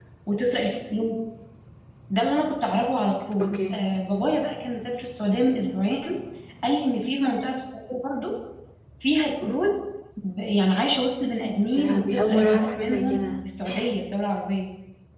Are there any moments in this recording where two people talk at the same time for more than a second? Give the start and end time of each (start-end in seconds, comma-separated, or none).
11.8-13.2